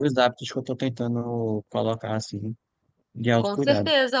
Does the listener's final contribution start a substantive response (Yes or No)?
Yes